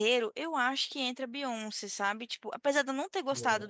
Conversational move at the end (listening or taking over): listening